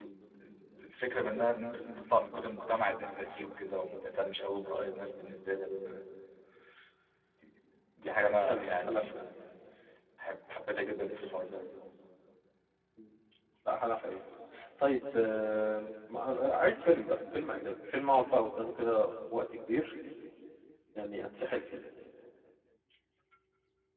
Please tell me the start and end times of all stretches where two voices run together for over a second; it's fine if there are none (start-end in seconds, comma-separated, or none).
8.0-9.2